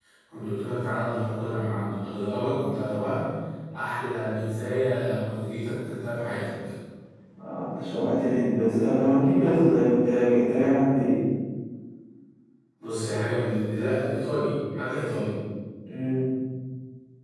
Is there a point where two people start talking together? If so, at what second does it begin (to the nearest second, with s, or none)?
none